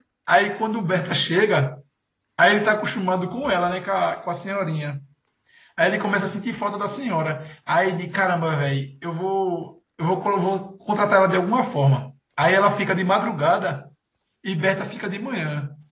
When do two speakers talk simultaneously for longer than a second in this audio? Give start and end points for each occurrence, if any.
none

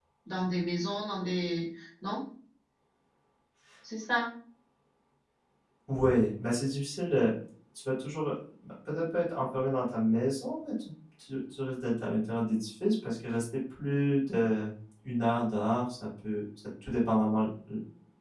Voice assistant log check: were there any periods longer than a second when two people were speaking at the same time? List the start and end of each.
none

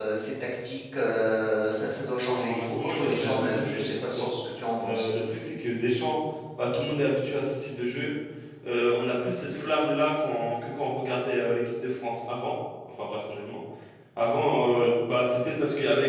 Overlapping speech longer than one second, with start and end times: 2.2-4.3

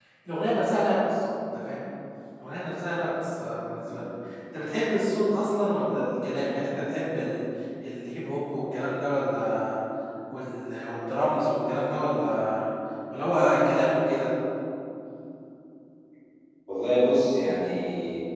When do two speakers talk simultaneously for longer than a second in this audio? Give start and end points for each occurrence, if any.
none

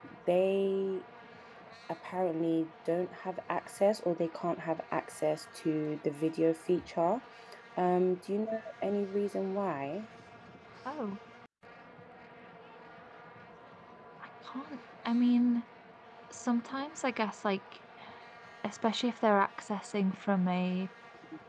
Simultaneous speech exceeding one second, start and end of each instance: none

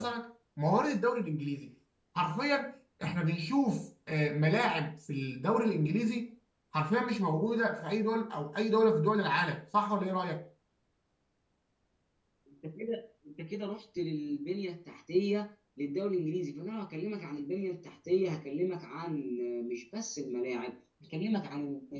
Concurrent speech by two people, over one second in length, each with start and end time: none

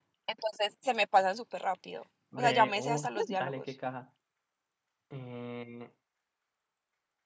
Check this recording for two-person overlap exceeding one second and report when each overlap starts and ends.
2.4-3.6

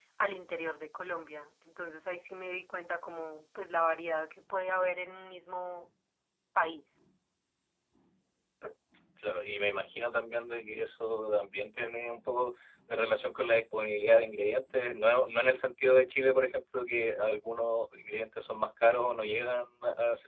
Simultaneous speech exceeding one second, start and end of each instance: none

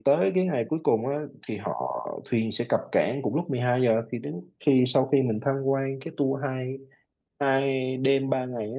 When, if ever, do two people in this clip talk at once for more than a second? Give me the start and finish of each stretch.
none

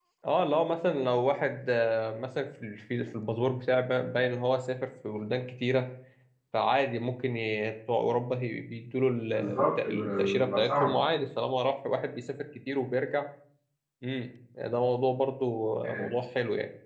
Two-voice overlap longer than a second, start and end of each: 9.3-11.0

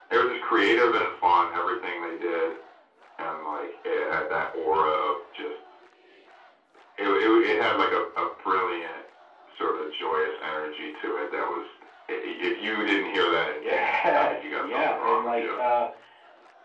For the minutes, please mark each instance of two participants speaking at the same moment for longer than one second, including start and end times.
13.6-15.6

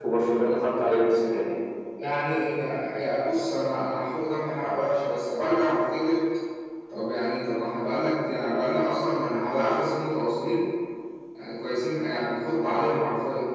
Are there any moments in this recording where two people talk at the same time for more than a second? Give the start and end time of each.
none

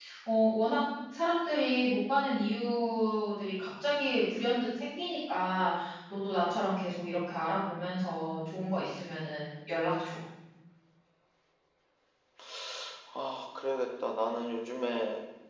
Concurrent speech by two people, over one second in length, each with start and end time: none

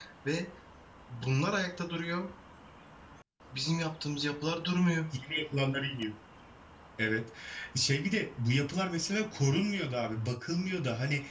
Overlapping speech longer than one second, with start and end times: none

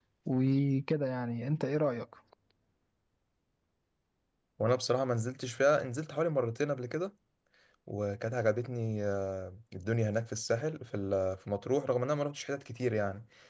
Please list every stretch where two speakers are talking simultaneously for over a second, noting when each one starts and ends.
none

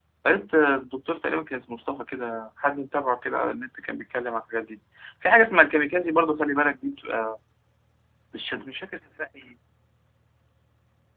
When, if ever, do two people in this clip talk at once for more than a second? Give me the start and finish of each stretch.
none

